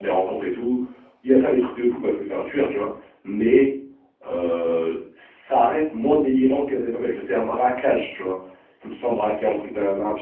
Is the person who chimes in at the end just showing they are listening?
Yes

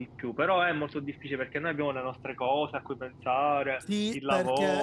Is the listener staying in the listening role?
No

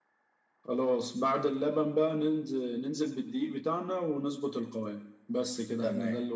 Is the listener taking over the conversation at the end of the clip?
Yes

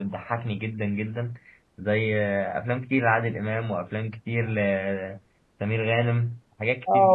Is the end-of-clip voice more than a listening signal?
Yes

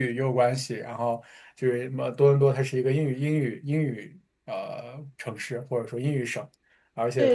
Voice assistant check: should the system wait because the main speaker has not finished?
No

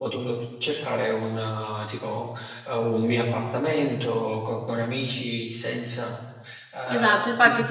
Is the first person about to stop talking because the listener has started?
Yes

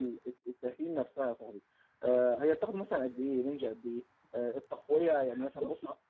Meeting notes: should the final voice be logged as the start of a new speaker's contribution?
No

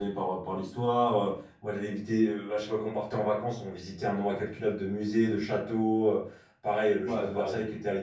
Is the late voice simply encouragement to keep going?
Yes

